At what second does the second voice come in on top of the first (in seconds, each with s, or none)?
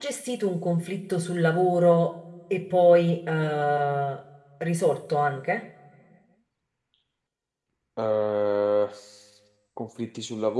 none